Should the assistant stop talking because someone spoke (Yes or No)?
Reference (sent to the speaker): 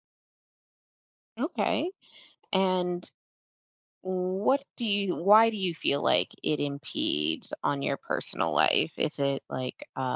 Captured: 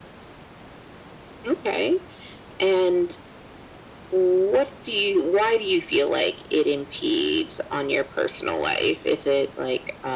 No